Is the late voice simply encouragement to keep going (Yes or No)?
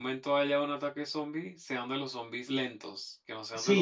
No